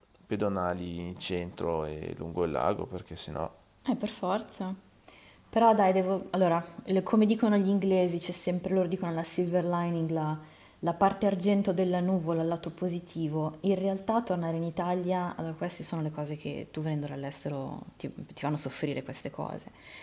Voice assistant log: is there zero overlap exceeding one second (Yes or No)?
Yes